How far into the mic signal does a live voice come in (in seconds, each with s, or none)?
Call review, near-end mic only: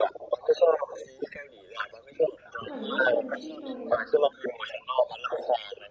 2.6 s